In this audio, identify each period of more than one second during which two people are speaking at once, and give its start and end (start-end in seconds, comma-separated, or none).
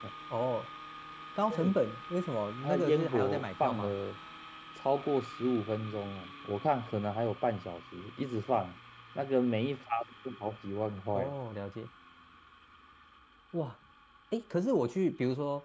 2.6-4.0